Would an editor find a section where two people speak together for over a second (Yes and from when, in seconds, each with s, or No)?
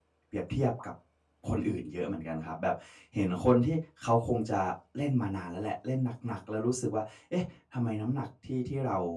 No